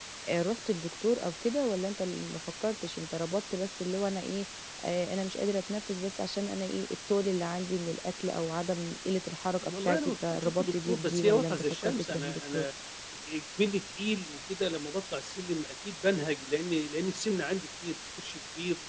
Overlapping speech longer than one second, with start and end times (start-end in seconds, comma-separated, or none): 9.6-12.6